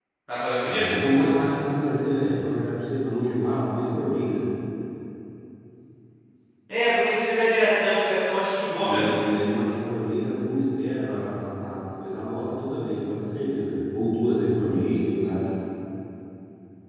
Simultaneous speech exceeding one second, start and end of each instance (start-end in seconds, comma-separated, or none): none